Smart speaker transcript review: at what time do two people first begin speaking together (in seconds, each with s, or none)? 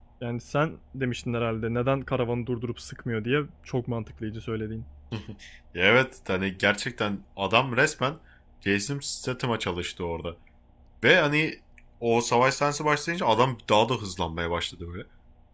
none